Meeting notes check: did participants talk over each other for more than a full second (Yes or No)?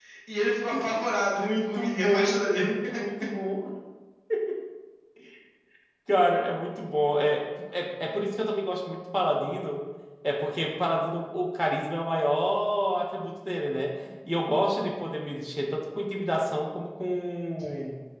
Yes